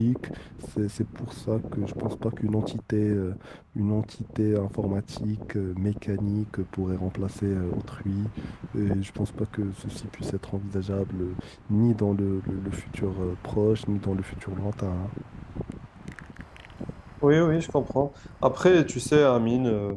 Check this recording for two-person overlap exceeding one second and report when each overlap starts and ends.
none

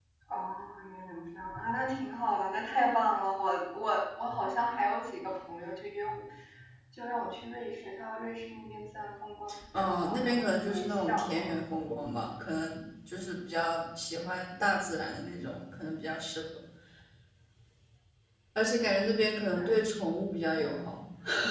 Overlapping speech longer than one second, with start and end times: 9.7-11.6

